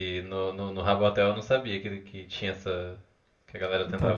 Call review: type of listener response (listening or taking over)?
taking over